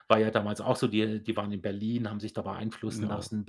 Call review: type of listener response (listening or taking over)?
listening